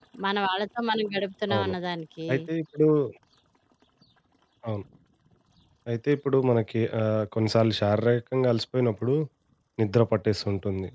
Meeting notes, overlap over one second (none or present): none